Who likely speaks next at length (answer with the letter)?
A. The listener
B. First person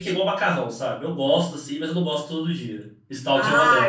A